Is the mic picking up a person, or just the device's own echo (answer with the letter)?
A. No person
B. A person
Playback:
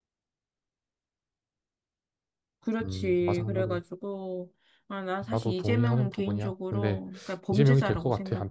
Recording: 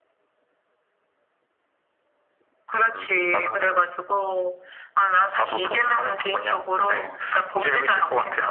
A